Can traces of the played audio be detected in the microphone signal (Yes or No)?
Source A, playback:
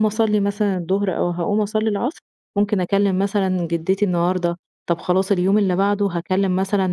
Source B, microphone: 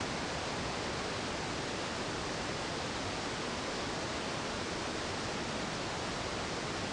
No